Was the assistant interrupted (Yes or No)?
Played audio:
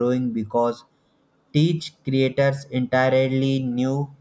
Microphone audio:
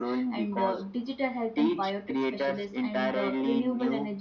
Yes